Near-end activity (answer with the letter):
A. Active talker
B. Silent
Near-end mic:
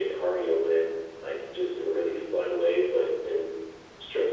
B